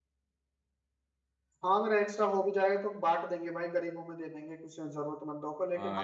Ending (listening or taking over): taking over